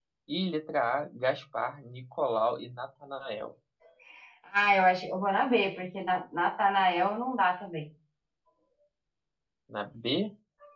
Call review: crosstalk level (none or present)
none